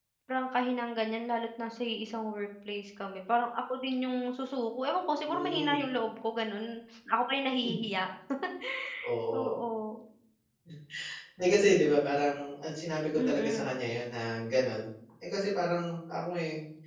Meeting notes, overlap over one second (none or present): none